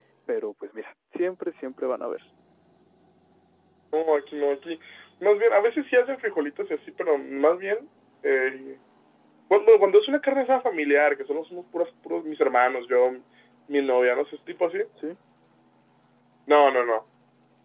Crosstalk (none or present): none